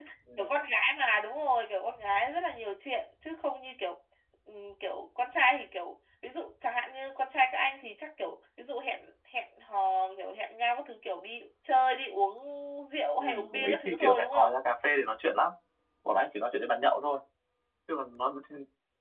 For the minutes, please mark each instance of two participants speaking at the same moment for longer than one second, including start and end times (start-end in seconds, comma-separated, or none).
13.2-14.5